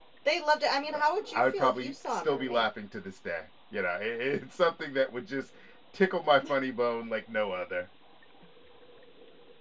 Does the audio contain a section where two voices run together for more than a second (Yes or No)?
Yes